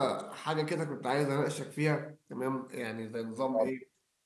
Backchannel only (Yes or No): Yes